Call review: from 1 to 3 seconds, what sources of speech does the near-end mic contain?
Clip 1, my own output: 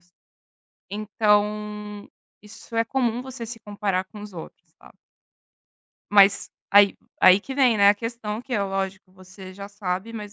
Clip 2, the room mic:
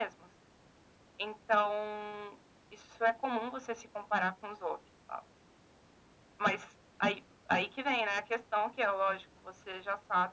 echo only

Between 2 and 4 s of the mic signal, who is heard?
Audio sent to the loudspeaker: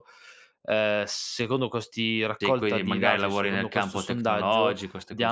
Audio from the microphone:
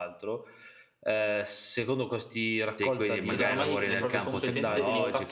both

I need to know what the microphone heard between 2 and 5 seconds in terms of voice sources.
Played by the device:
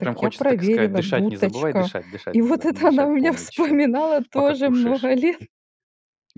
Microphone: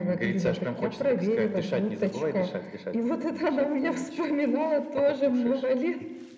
echo only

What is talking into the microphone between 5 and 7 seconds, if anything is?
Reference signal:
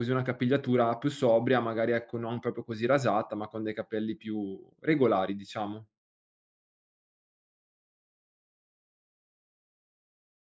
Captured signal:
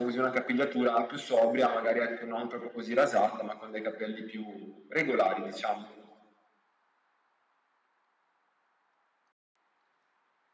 echo only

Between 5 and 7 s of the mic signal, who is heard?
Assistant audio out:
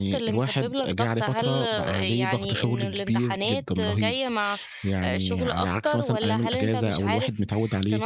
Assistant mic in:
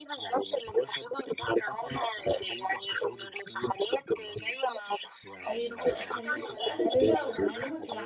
both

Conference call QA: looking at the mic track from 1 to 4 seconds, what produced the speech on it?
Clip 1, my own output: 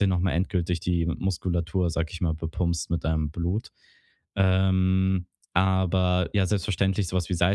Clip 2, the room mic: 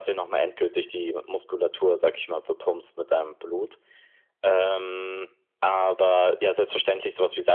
echo only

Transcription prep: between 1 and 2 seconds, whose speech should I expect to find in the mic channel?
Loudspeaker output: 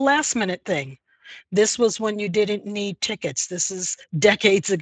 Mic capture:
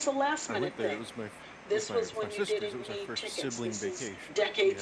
both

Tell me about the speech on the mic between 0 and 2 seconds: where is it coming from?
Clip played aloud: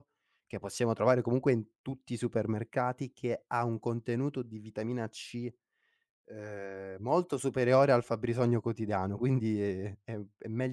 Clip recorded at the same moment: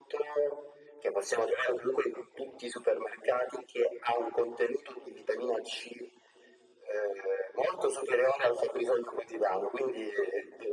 echo only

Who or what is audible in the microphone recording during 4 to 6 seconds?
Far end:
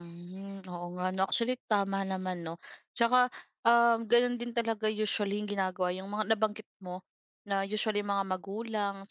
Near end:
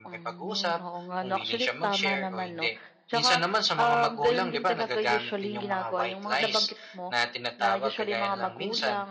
both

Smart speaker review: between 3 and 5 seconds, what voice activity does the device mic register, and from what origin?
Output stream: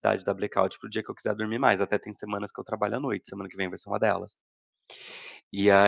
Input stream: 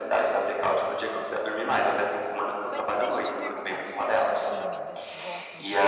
both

